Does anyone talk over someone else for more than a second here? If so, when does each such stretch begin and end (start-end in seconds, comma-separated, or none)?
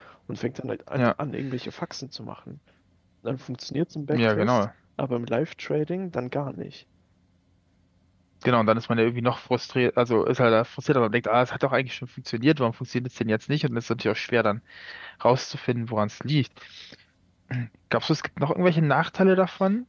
none